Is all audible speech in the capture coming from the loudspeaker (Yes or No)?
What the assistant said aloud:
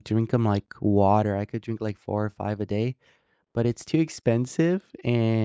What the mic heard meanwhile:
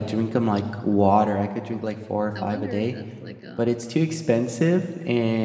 No